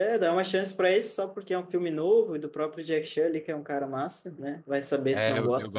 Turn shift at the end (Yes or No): Yes